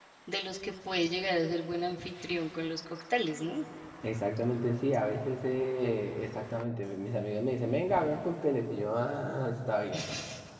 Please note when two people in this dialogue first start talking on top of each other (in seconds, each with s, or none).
none